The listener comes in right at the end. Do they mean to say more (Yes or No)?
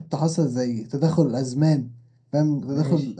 No